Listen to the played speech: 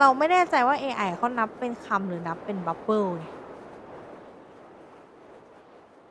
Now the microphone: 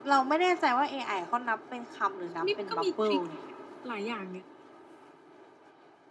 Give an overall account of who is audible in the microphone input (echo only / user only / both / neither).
both